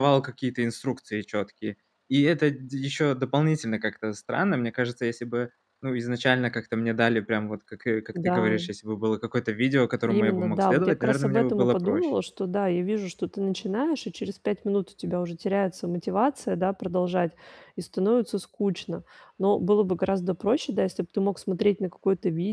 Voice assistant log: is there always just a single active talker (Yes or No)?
No